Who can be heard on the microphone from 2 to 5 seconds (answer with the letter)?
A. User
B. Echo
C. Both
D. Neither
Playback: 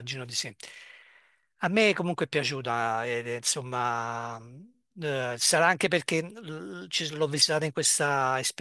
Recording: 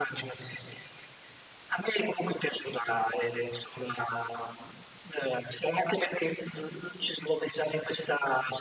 B